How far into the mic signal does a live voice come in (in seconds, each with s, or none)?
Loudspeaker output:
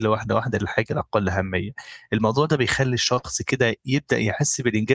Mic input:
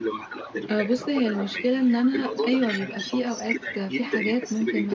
0.7 s